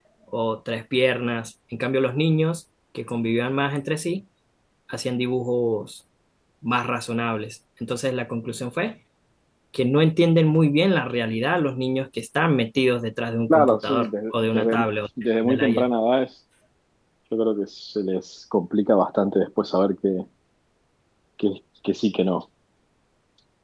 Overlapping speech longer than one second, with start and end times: 13.5-14.8

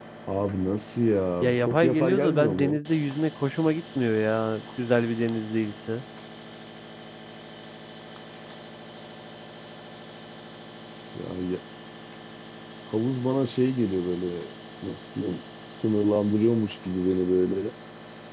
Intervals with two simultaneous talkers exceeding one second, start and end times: 1.4-2.8

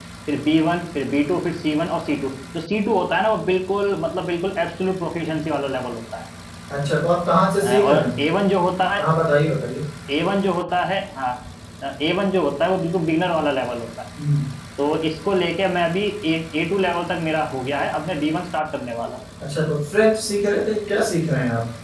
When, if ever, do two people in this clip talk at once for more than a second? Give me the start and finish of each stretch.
none

